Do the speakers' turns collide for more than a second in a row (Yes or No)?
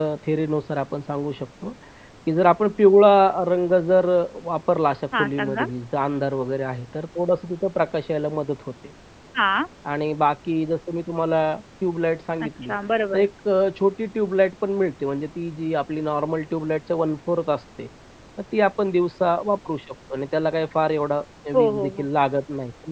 No